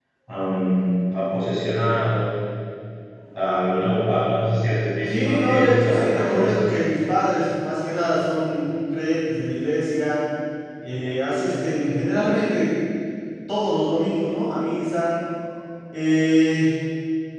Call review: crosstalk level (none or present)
present